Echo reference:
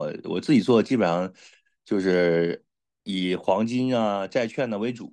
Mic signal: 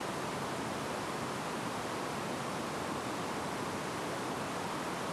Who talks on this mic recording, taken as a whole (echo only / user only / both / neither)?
neither